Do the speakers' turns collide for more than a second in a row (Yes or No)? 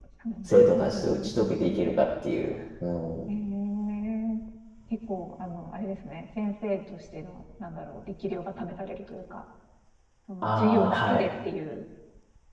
Yes